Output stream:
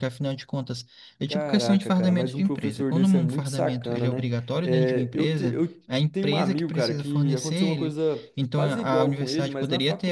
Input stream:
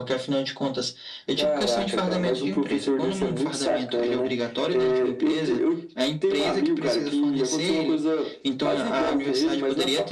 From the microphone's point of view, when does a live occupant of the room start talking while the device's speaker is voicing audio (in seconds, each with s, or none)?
none